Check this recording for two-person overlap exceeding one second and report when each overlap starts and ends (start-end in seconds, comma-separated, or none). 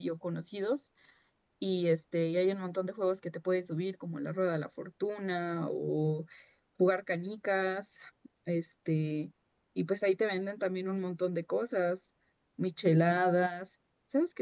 none